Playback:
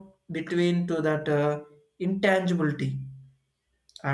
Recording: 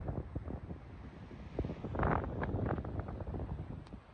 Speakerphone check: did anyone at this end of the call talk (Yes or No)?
No